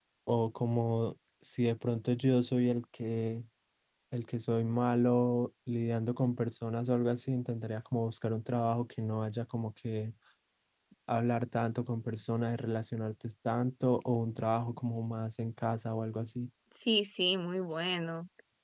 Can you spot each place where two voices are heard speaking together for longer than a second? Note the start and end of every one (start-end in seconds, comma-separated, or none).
none